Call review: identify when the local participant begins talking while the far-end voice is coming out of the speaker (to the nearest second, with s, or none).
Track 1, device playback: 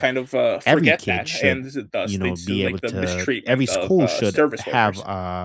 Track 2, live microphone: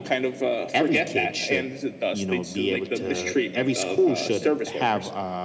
none